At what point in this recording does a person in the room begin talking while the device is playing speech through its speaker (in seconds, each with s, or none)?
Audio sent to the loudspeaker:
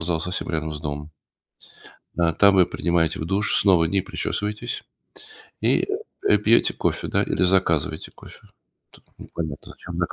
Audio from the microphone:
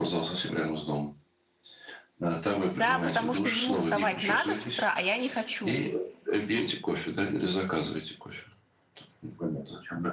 2.7 s